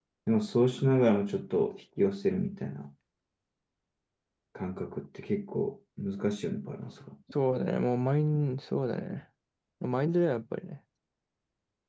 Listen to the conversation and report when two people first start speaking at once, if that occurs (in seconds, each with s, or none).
none